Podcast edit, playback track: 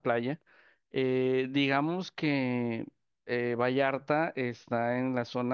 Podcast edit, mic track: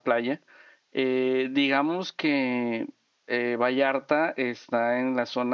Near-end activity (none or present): none